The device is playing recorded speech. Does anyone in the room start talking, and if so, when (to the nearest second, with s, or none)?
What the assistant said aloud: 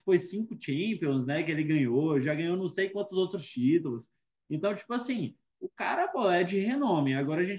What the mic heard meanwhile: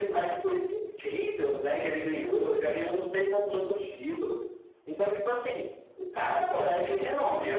none